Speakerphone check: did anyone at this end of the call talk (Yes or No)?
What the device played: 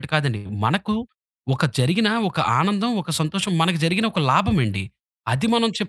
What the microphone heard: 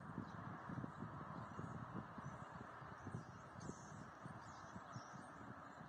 No